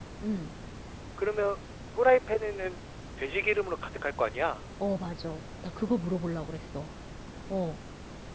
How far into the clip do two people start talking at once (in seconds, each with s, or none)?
none